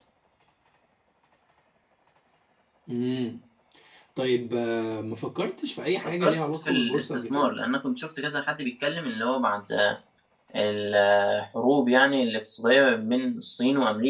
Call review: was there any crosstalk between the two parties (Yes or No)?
Yes